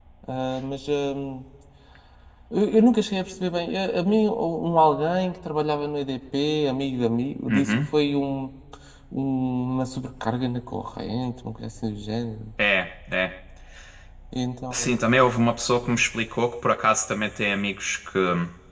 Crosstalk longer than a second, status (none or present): none